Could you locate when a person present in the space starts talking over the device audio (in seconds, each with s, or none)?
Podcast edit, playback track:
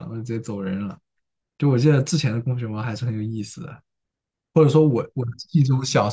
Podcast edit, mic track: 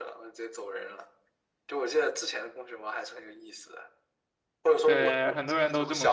4.8 s